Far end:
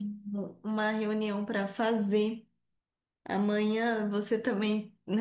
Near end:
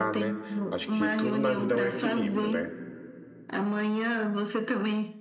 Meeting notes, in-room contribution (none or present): present